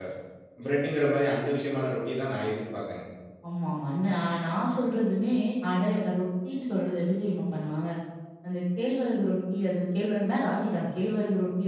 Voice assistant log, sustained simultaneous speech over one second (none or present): none